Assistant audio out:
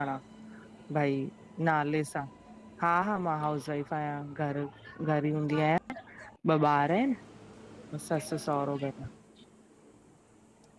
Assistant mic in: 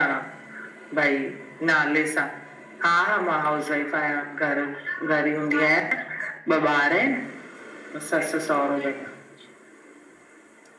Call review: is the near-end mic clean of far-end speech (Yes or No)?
No